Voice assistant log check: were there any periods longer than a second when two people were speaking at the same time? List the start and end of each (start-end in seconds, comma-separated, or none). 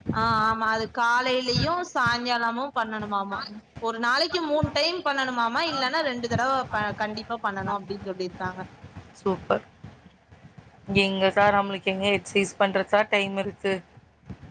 none